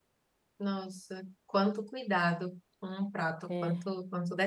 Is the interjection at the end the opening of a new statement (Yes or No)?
No